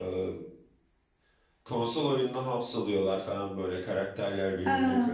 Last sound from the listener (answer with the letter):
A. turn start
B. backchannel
B